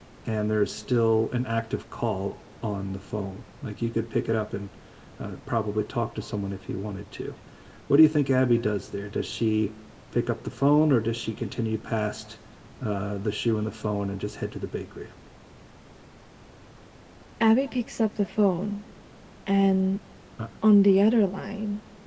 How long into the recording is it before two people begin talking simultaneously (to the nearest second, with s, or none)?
none